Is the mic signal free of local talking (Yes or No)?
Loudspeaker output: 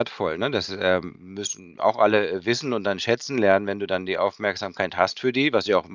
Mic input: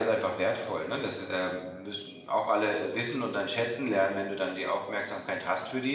Yes